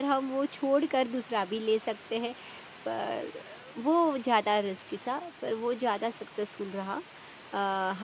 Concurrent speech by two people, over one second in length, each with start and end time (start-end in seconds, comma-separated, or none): none